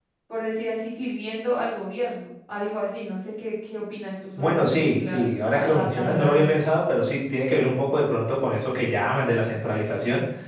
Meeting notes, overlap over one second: present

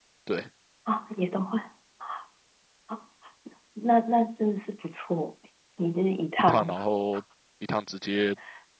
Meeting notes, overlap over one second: none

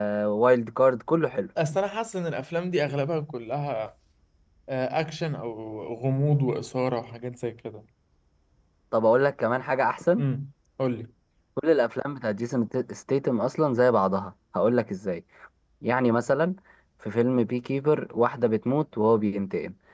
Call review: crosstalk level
none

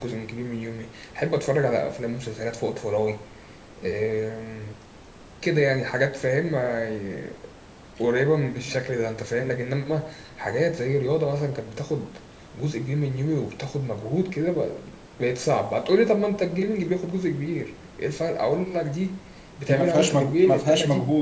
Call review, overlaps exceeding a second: present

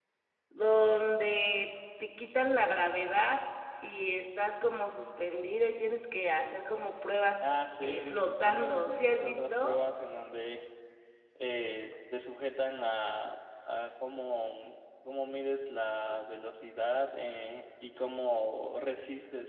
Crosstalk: present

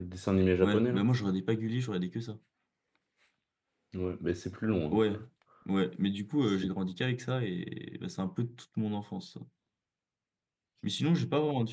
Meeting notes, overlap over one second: none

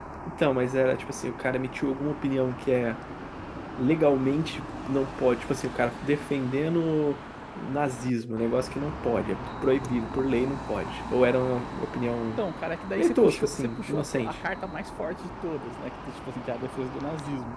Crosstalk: present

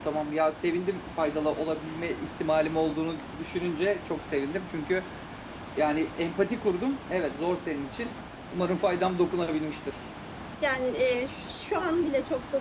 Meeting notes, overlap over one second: none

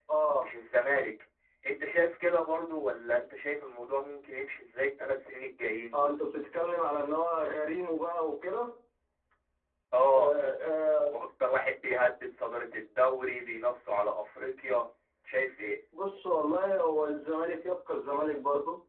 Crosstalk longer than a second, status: none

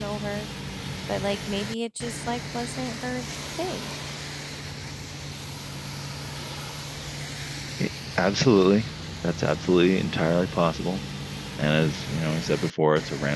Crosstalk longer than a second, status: none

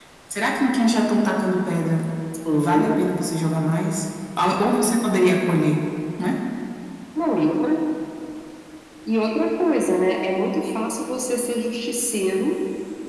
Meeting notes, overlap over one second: none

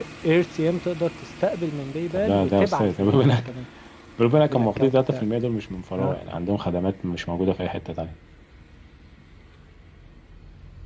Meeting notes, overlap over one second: present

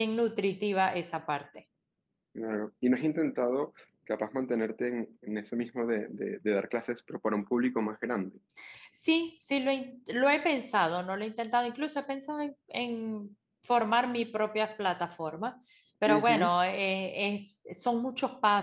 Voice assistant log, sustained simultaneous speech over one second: none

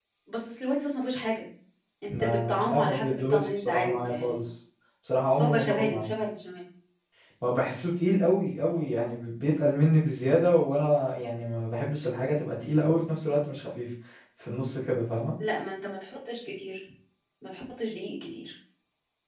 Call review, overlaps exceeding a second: present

